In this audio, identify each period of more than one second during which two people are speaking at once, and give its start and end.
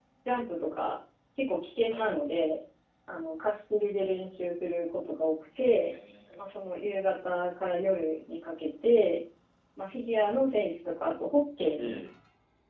none

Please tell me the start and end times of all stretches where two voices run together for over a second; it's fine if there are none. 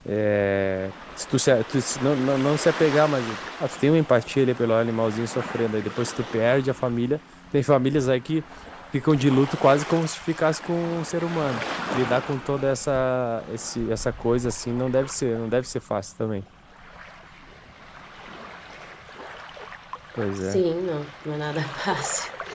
none

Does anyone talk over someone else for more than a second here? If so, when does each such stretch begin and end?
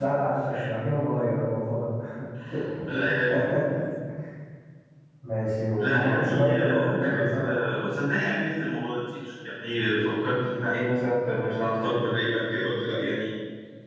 5.8-7.5

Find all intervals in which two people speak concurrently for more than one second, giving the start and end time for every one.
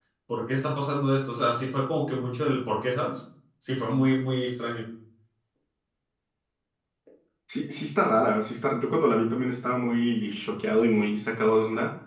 none

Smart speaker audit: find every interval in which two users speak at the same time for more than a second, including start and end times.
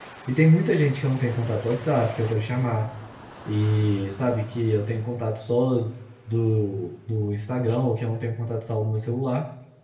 none

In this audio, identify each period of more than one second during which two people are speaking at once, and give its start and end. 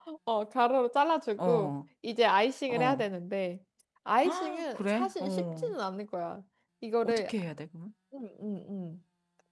4.2-5.7

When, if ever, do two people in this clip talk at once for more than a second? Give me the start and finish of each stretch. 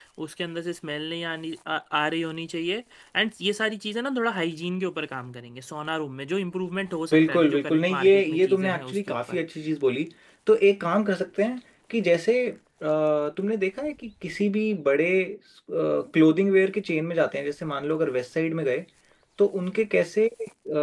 7.1-9.4

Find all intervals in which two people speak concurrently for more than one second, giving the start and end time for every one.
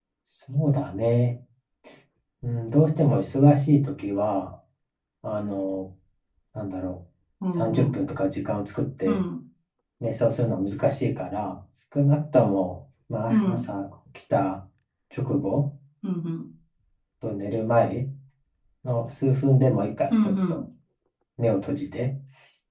none

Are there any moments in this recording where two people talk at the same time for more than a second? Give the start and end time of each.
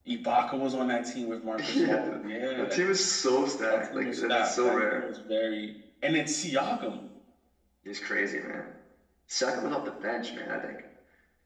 3.7-5.0

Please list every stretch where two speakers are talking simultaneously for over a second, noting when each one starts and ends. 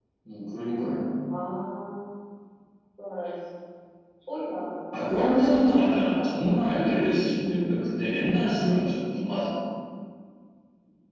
5.0-6.6

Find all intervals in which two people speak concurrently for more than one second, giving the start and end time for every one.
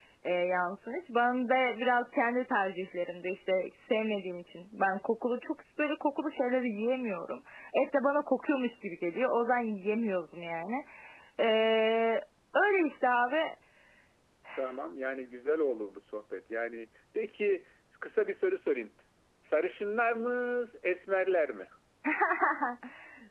none

